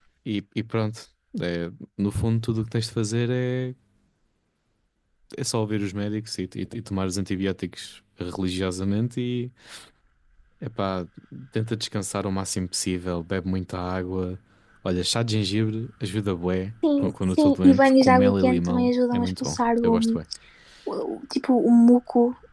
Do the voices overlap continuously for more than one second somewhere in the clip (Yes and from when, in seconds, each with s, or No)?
Yes, from 16.8 s